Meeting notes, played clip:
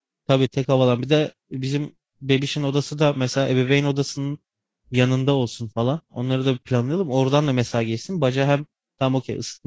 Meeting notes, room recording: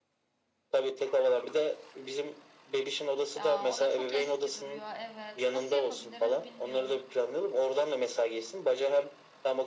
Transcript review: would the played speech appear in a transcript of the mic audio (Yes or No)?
Yes